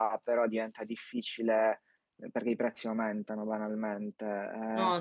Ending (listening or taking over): listening